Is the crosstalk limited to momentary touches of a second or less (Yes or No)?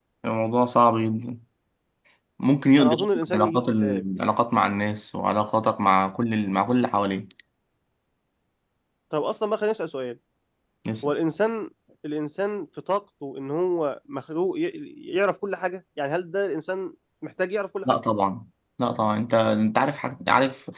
No